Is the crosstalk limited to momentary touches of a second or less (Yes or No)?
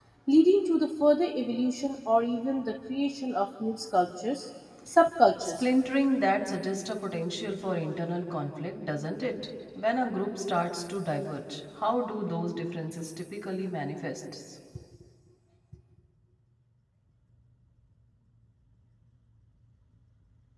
Yes